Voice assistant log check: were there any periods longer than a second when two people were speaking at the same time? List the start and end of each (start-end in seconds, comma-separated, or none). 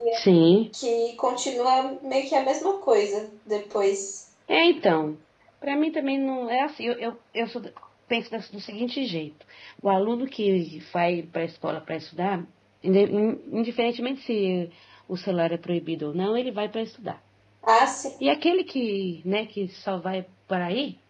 none